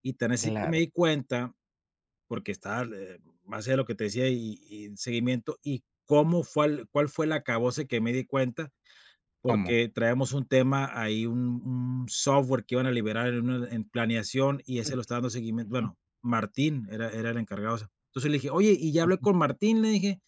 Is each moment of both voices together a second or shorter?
Yes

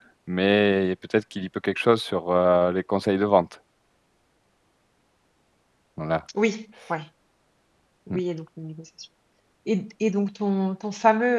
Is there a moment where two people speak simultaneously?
No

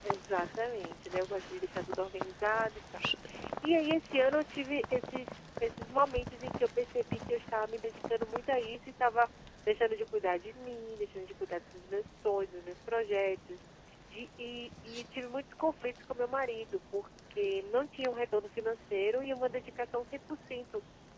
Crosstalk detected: No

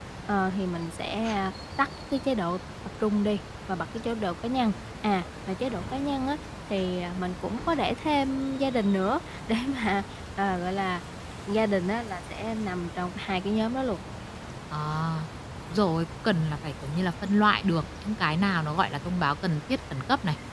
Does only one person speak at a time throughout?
Yes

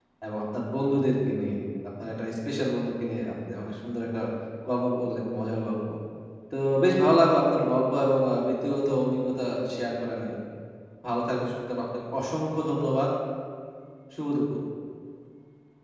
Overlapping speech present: No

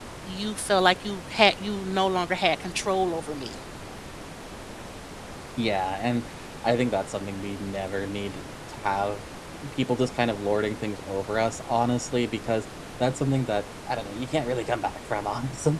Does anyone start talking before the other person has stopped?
No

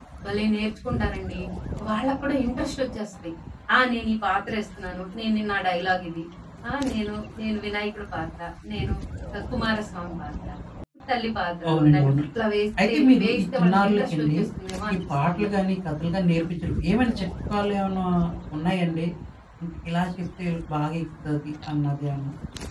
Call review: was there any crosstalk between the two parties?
Yes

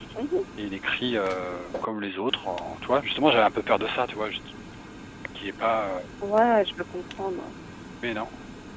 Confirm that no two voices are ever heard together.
Yes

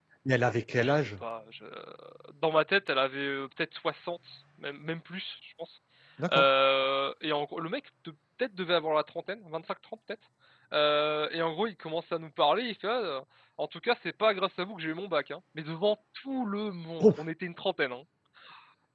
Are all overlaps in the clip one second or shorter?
Yes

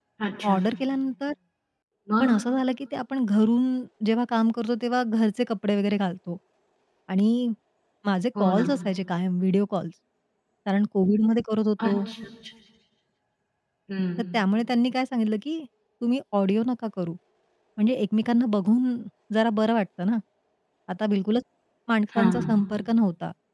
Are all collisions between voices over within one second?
Yes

